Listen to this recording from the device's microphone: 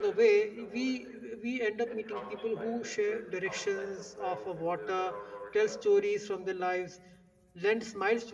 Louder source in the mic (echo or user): user